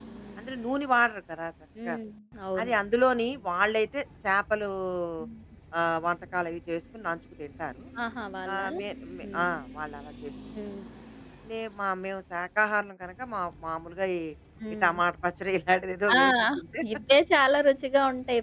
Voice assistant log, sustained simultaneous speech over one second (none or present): none